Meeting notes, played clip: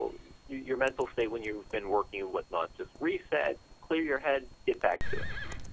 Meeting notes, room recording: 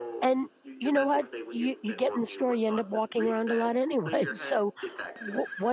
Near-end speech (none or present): present